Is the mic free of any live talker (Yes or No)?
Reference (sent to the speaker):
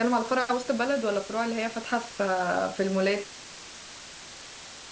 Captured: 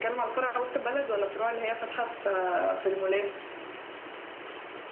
Yes